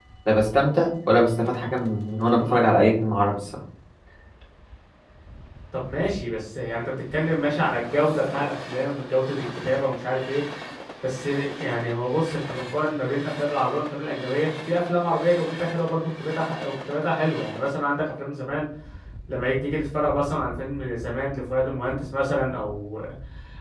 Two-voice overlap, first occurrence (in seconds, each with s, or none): none